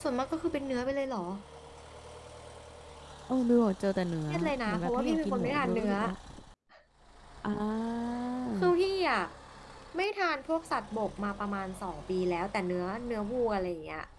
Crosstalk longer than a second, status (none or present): present